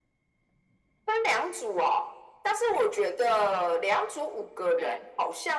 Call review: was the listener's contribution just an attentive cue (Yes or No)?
Yes